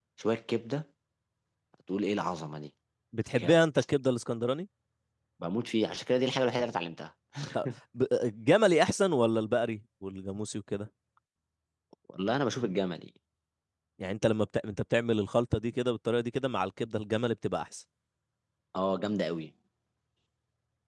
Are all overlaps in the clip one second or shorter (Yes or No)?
Yes